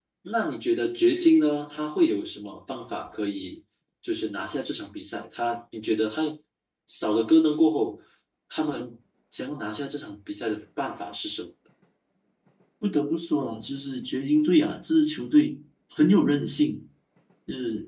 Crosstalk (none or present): none